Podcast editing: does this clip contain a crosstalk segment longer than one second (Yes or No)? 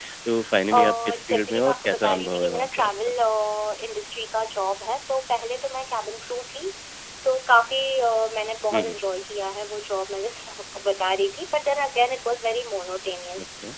Yes